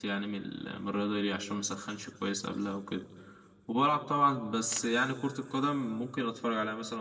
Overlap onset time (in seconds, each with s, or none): none